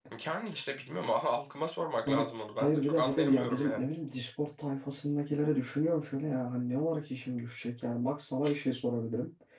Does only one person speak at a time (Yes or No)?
No